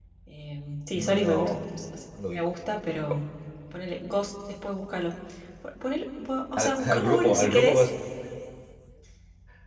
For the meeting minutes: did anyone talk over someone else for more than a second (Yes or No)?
Yes